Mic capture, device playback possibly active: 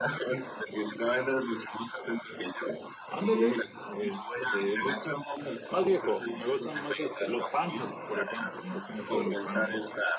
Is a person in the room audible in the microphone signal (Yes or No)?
Yes